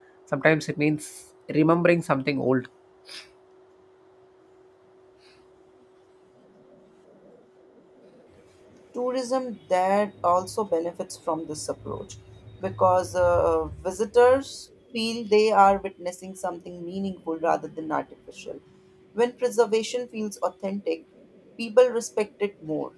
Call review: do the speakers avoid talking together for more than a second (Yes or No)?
Yes